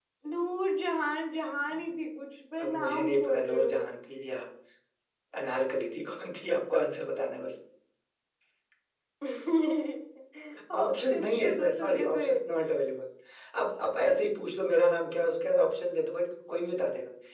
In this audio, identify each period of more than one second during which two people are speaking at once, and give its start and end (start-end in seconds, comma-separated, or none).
2.6-3.8, 10.8-12.2